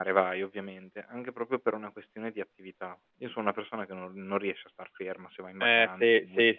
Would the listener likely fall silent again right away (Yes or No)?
No